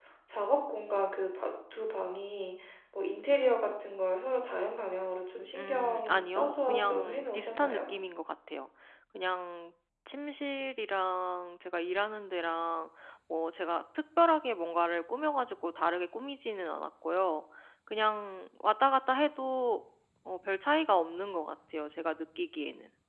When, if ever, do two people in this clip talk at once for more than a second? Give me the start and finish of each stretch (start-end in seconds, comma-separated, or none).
5.5-7.8